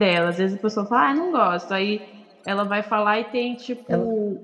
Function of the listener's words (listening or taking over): listening